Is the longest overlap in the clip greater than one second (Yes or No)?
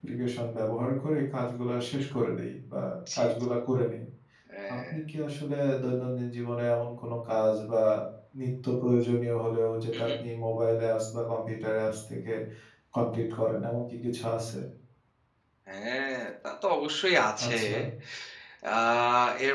No